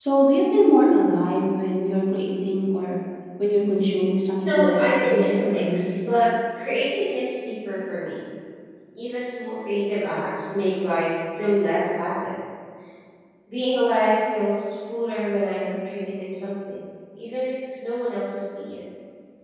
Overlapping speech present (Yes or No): Yes